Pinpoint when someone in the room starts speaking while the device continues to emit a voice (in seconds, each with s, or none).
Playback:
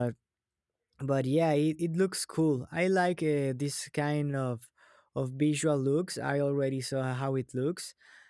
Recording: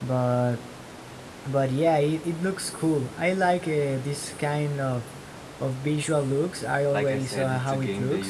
6.9 s